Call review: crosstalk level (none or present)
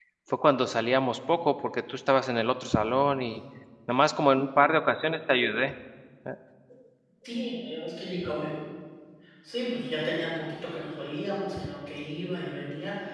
none